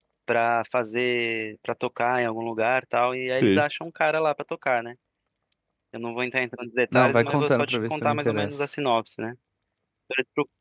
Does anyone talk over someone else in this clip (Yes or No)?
Yes